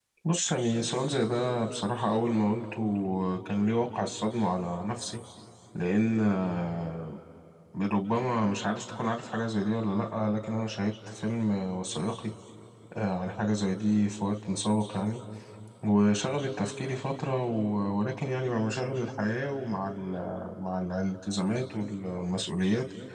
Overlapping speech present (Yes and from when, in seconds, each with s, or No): No